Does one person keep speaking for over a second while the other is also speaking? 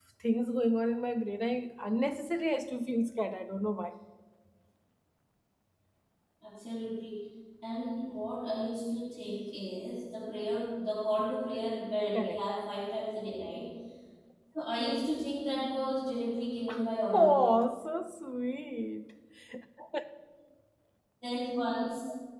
No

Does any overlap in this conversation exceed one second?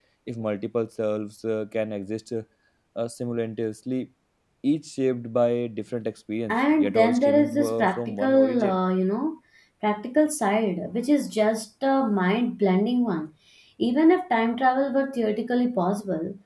Yes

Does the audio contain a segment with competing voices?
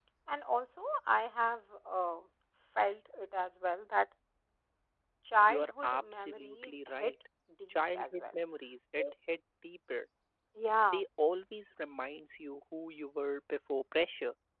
Yes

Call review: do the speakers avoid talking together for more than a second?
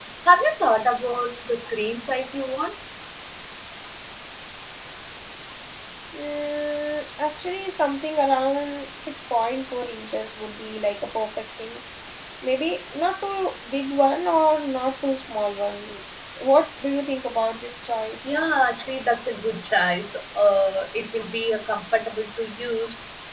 Yes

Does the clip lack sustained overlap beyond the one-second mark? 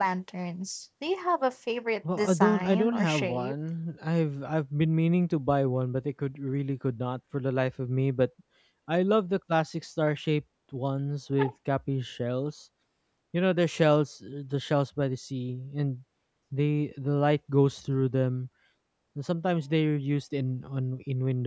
No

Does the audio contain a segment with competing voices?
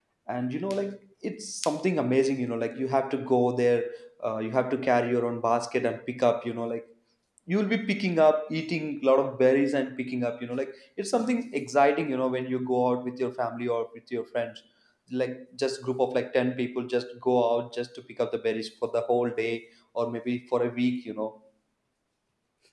No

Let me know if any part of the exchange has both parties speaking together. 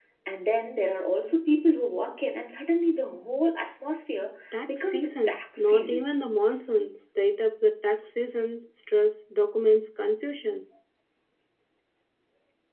Yes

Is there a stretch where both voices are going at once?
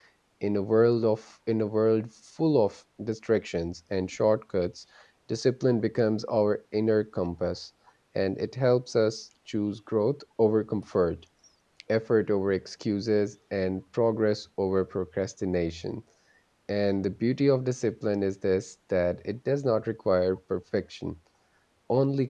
No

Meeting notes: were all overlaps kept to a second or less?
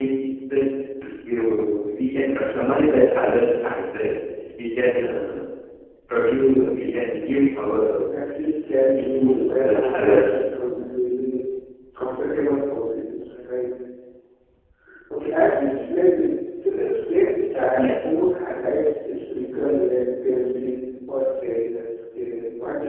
No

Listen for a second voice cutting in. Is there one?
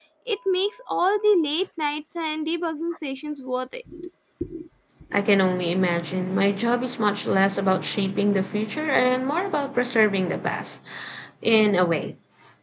No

